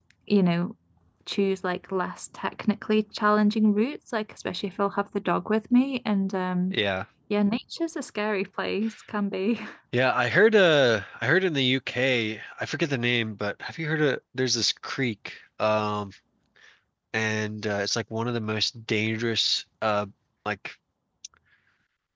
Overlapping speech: No

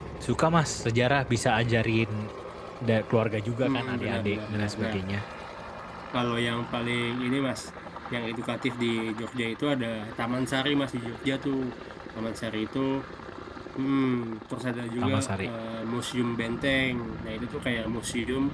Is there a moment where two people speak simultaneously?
Yes, from 3.6 s

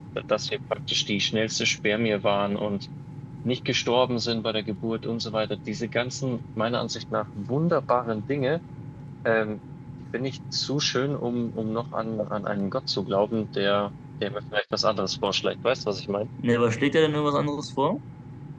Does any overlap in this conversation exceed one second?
No

